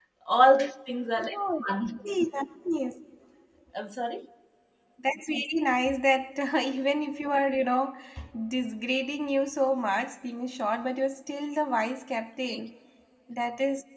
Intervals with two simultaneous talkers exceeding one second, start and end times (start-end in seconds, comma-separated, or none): none